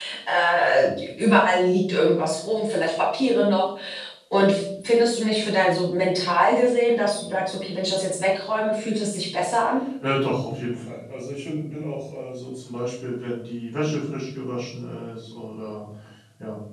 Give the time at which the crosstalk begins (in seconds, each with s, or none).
none